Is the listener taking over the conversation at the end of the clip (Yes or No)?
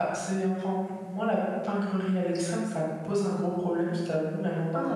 Yes